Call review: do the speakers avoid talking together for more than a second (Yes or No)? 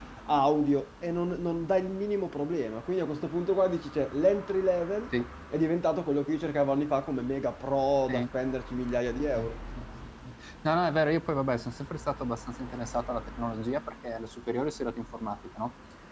Yes